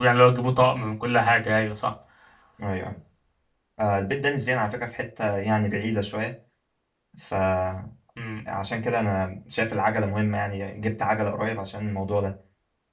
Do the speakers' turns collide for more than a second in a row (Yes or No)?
No